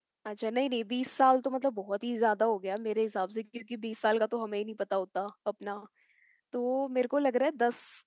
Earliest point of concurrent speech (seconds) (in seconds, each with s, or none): none